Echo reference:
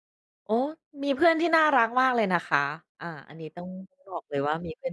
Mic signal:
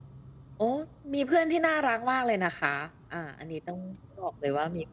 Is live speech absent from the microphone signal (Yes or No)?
Yes